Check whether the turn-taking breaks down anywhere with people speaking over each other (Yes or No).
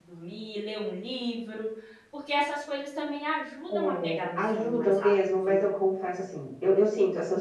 Yes